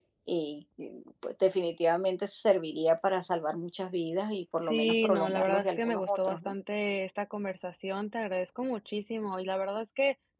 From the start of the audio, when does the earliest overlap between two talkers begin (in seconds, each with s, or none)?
4.6 s